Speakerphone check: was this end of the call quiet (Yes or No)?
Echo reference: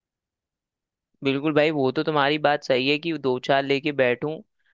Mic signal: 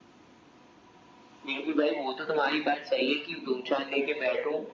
Yes